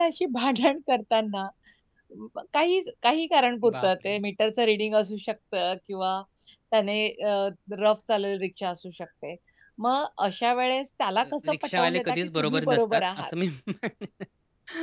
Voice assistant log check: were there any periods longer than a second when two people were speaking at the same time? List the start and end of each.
11.2-13.3

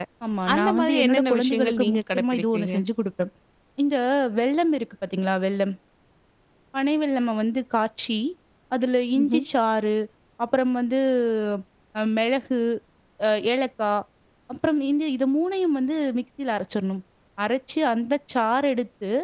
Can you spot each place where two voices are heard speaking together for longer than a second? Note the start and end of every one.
0.5-2.8

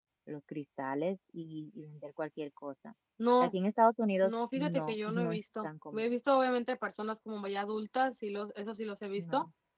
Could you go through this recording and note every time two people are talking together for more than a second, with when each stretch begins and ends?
4.2-6.1

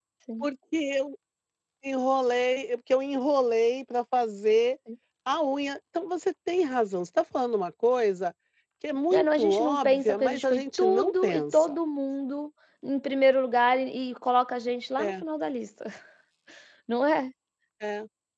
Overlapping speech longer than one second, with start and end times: 9.1-11.7

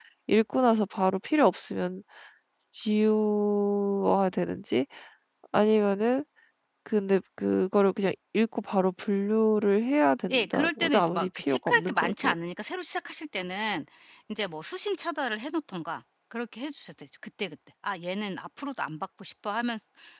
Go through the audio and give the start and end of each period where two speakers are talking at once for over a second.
10.3-12.3

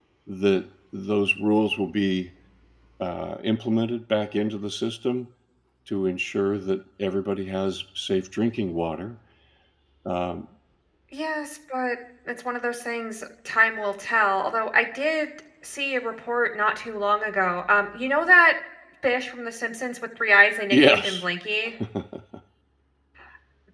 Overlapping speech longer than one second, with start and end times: none

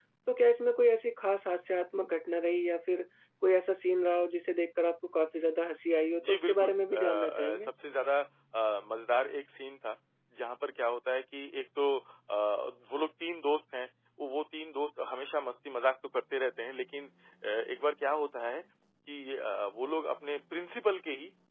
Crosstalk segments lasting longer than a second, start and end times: 6.2-7.7

